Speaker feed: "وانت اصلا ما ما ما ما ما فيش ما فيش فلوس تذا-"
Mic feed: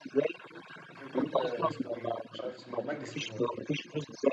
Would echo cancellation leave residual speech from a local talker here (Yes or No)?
Yes